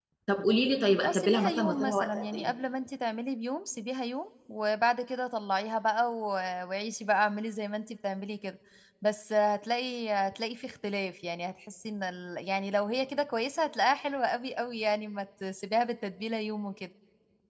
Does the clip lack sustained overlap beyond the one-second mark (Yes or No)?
No